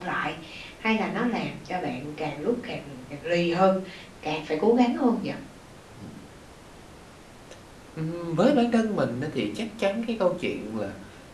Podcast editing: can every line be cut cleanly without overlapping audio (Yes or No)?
Yes